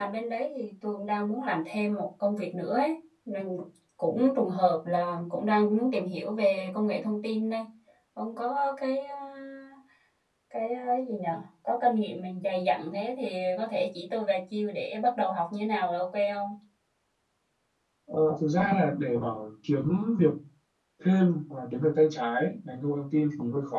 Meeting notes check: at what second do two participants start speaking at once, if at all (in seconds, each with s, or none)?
none